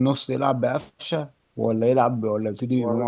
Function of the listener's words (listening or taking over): taking over